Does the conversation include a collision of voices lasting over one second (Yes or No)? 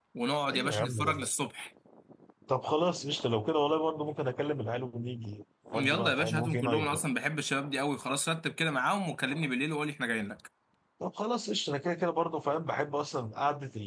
Yes